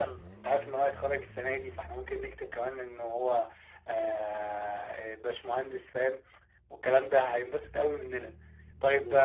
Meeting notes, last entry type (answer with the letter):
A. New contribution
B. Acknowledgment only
B